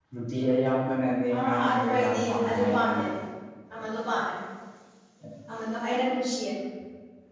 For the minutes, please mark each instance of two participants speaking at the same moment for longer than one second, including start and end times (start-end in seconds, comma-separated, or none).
1.4-2.9